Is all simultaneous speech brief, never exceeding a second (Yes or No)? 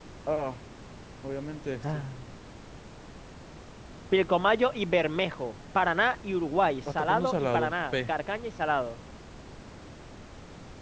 No